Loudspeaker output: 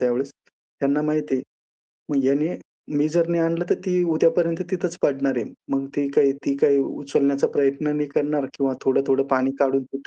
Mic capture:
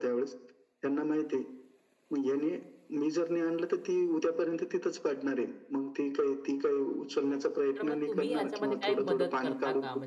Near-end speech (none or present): present